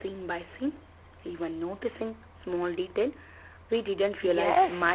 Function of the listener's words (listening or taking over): taking over